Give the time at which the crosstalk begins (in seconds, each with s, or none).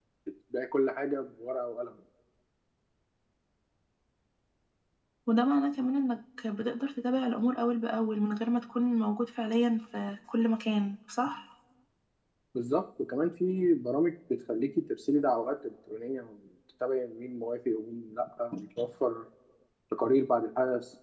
none